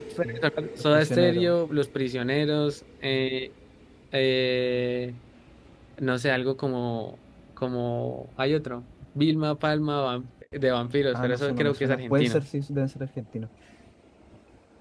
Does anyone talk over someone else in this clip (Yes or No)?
Yes